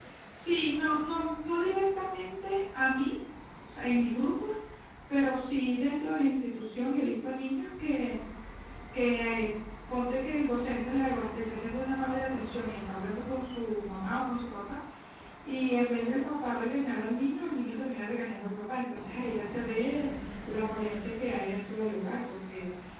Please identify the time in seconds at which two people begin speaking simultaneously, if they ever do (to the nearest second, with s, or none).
none